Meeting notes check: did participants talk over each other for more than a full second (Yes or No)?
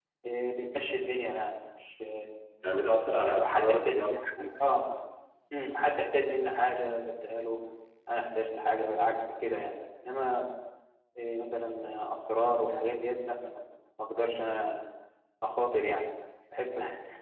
Yes